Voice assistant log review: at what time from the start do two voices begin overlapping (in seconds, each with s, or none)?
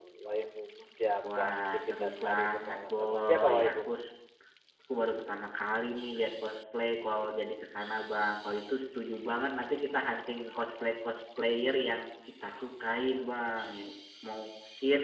1.2 s